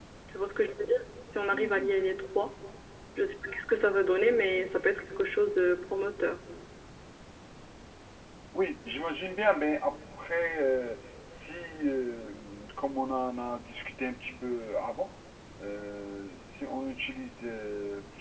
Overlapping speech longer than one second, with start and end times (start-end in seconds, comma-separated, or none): none